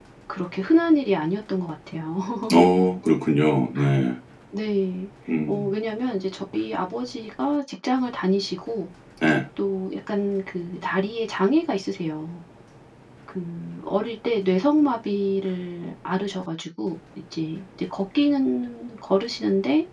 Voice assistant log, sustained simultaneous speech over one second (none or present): none